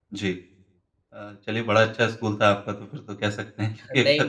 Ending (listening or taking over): listening